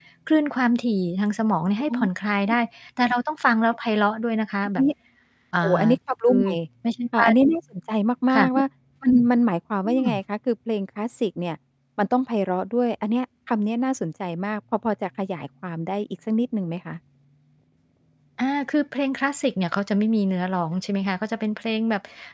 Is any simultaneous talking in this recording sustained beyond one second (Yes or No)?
No